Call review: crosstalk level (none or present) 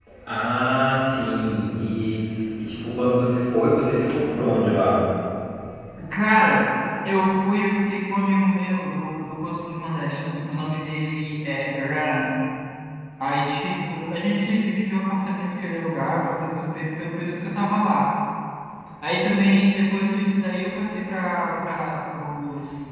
none